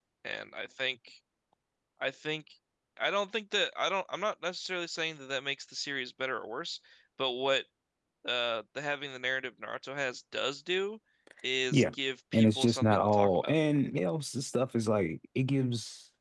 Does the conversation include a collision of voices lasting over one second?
Yes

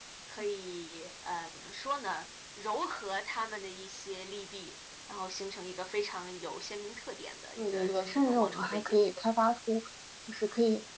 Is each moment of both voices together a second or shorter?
No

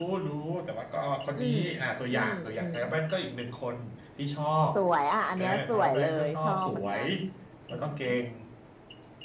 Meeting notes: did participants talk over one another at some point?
Yes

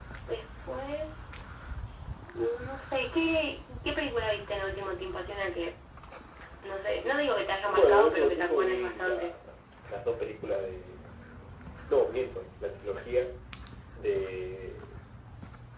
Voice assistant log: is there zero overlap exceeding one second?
No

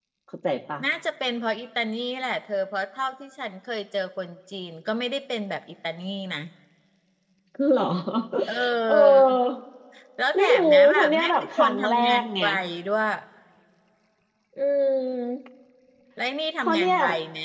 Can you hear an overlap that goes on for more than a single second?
Yes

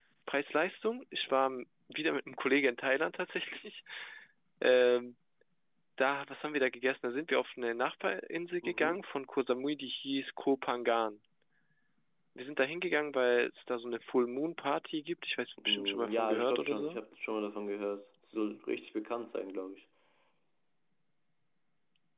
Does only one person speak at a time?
No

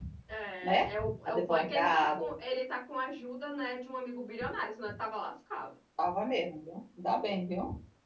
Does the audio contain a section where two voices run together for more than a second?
Yes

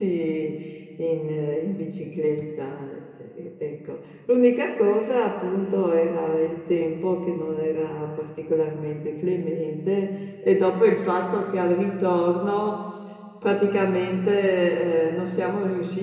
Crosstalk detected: No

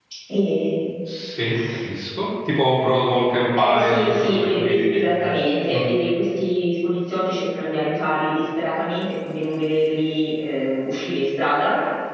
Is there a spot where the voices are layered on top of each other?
Yes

